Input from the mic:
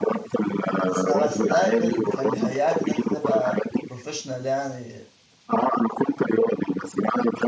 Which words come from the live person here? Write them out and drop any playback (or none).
بس بس ده كان كان بيهيئك ان انت تبقى بروفيشنال يعني